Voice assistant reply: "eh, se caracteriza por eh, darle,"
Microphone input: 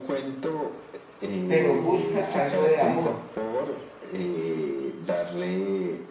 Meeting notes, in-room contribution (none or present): present